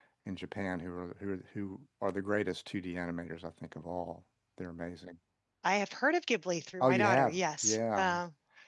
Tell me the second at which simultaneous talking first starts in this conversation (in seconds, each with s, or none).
6.8 s